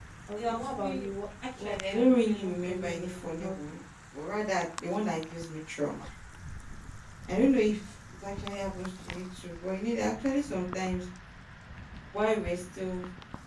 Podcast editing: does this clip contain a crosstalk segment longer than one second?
Yes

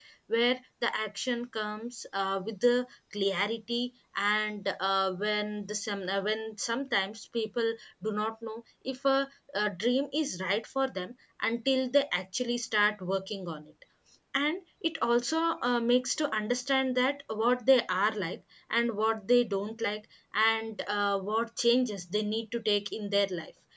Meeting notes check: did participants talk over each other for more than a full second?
No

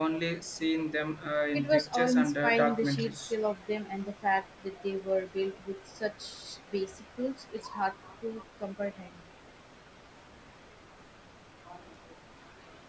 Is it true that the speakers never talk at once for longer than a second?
No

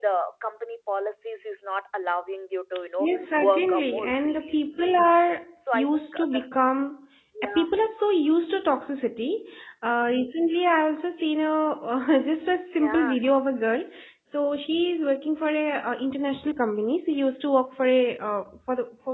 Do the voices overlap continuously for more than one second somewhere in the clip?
Yes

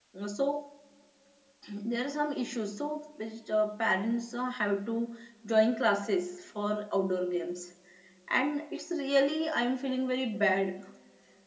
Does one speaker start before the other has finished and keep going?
No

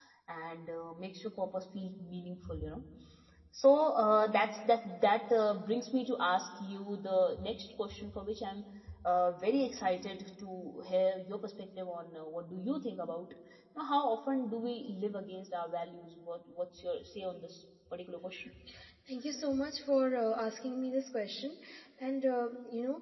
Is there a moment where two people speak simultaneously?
No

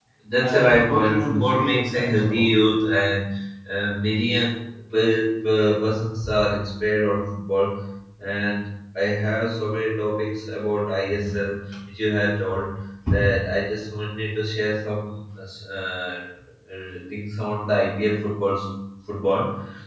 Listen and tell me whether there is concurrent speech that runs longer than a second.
Yes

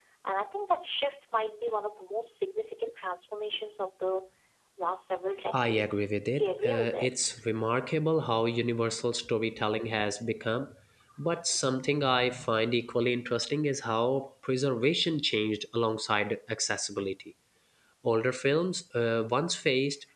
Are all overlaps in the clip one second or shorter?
No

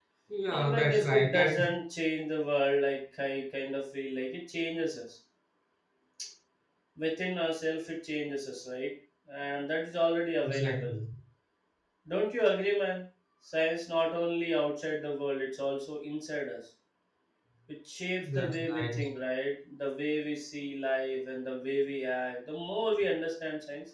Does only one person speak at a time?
No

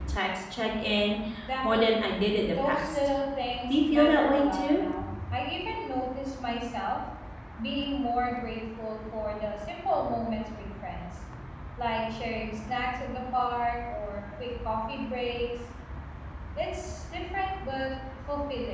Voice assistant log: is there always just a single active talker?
No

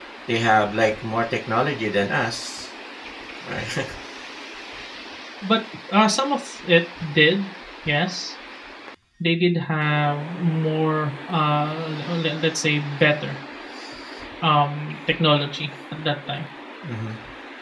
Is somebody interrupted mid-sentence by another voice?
No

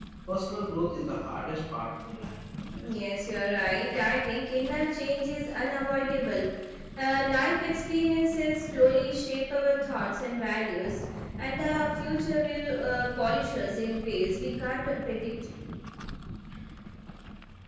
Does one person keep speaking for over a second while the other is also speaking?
No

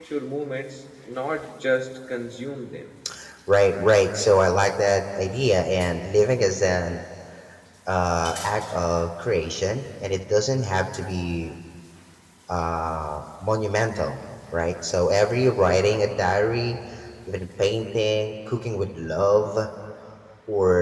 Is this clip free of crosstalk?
Yes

